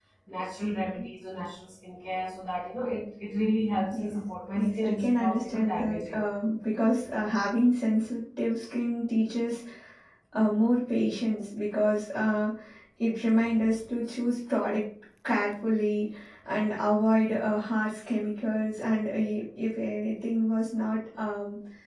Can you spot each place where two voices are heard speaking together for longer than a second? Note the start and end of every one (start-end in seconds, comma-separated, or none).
4.6-6.2